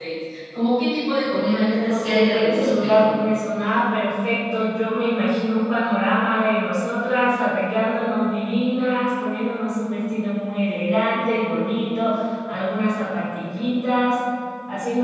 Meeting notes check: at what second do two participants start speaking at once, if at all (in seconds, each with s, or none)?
1.2 s